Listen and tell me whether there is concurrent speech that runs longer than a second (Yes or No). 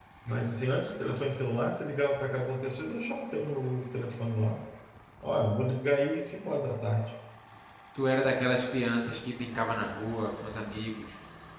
No